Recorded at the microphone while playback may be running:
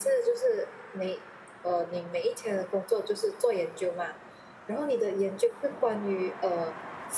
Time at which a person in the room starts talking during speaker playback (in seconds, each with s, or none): none